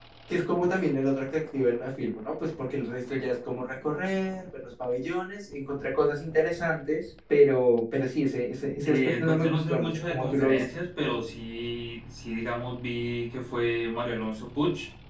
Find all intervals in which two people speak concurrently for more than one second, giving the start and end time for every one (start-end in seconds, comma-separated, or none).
8.8-10.6